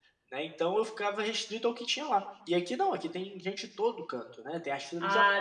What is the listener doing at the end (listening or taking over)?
listening